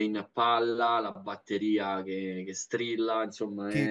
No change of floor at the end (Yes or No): No